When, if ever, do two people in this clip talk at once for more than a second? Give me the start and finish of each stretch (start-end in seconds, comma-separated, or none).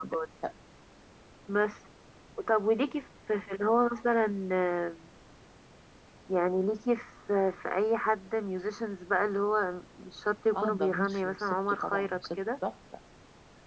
10.6-12.4